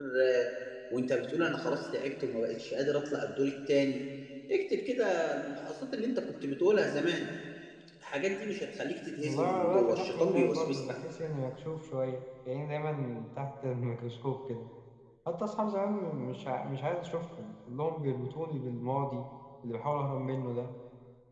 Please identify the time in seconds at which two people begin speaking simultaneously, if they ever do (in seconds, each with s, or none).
9.2 s